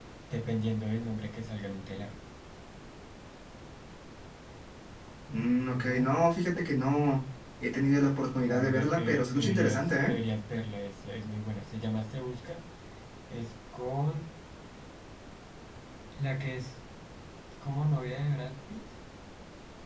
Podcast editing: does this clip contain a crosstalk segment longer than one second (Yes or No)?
Yes